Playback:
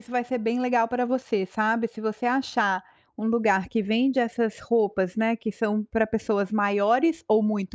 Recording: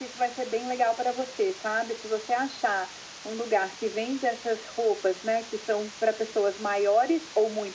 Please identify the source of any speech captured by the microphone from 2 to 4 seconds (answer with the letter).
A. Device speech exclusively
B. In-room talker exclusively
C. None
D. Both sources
A